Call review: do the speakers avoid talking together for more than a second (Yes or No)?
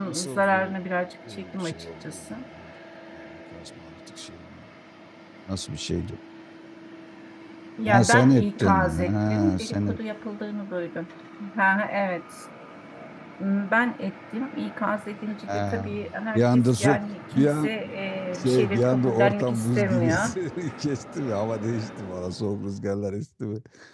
No